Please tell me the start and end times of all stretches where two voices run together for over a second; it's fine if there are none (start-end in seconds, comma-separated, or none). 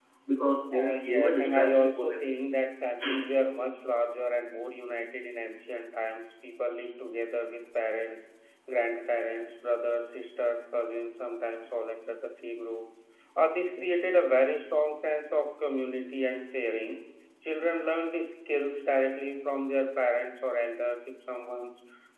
0.7-2.2